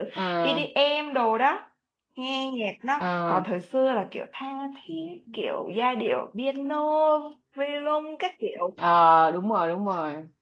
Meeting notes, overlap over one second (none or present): none